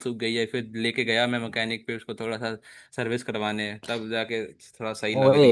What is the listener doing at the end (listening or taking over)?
taking over